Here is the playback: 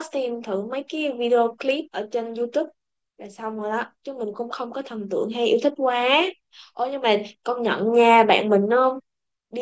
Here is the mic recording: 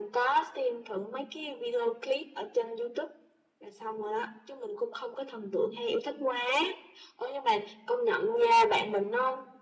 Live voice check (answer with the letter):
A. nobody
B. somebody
A